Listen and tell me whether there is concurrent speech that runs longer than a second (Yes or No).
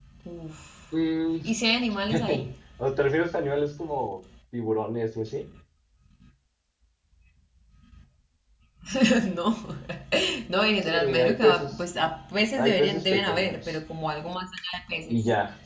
Yes